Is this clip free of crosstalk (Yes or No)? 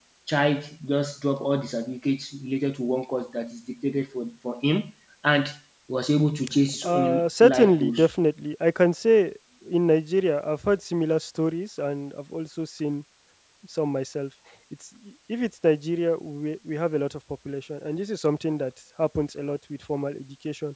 No